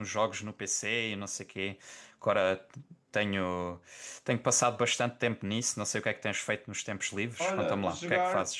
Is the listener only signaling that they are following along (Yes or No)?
No